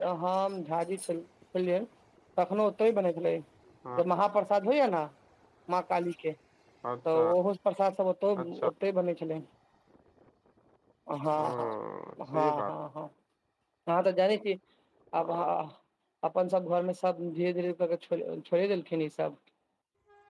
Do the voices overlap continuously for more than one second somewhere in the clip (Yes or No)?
No